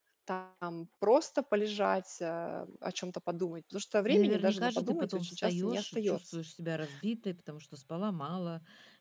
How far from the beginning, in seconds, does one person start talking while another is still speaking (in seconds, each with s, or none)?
4.1 s